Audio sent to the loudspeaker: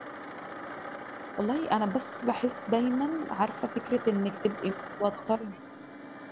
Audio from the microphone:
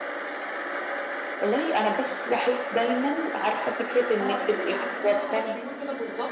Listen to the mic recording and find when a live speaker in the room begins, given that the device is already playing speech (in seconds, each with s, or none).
4.1 s